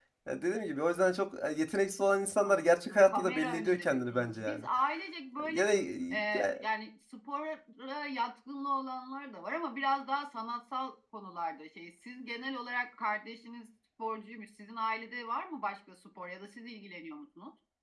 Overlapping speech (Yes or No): Yes